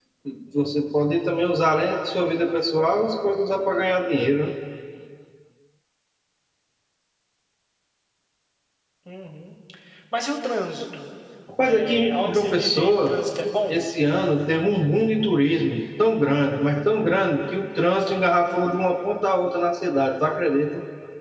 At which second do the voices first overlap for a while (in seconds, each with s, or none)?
11.6 s